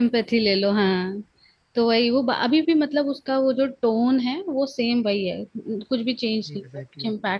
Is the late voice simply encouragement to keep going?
No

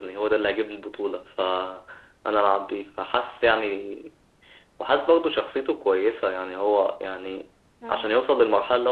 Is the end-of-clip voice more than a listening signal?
No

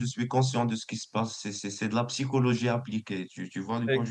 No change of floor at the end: No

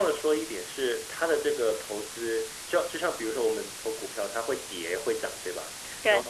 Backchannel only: Yes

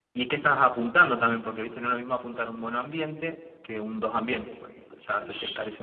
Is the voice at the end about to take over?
Yes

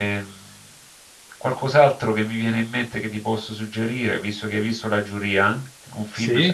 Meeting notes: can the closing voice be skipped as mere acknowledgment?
Yes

